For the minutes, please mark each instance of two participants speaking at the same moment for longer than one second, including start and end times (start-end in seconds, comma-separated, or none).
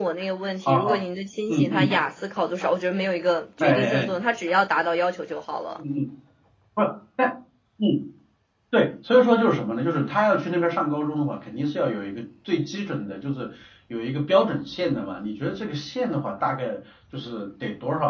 none